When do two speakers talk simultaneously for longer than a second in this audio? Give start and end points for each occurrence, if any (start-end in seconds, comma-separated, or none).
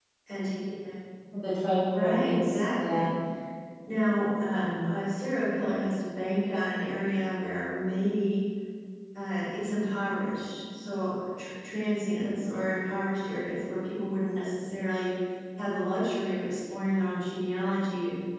1.9-3.1